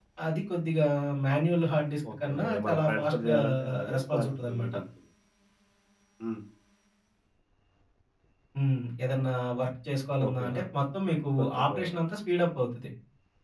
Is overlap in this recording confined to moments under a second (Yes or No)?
No